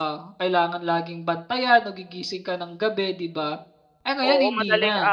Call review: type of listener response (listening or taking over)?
taking over